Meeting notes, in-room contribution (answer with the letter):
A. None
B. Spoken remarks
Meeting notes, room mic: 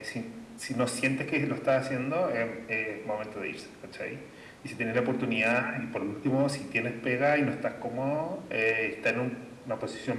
A